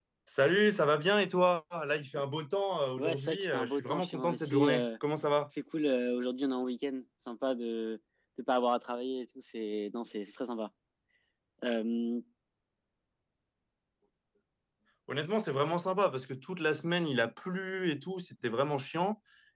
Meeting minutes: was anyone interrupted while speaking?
Yes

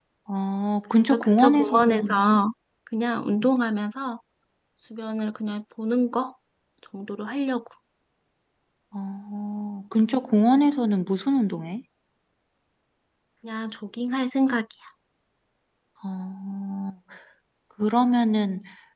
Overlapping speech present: Yes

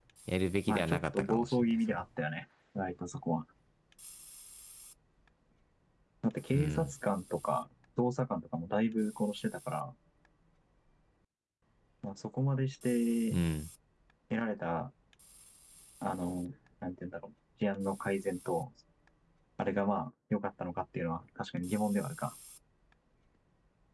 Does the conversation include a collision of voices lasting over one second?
Yes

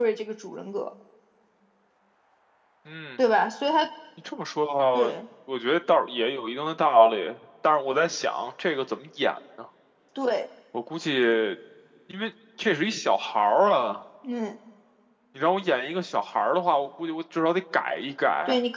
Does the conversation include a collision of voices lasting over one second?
No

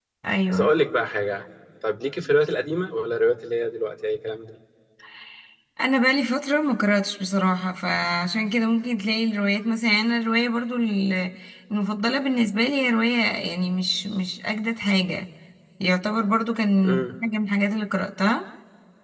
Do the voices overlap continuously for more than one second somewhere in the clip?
No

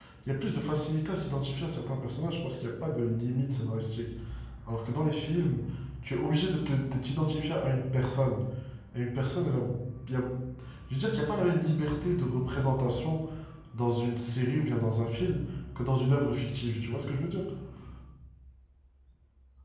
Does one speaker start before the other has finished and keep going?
No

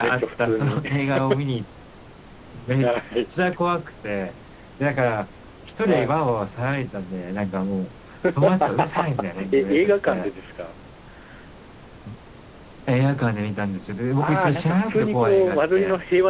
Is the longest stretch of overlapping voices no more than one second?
No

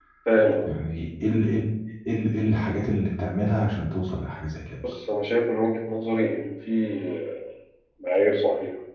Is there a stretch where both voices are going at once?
No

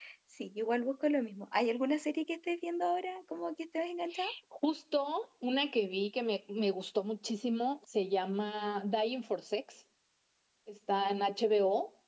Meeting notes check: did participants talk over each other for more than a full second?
No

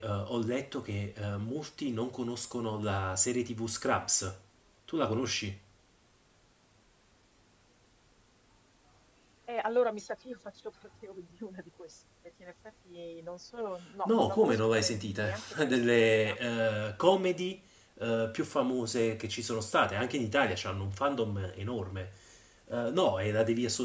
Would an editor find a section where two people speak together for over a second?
Yes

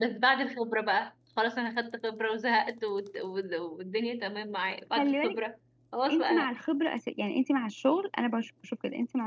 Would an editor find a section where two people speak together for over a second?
No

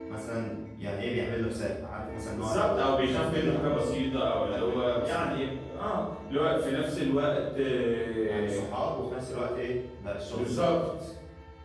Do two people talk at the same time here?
Yes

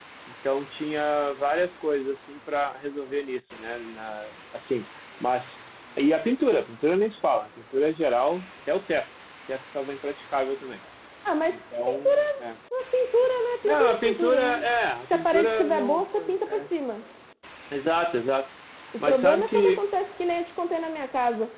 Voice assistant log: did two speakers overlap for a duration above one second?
Yes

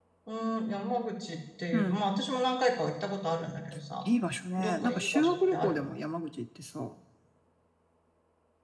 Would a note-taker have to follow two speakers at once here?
Yes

